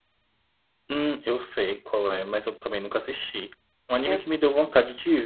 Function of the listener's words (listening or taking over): listening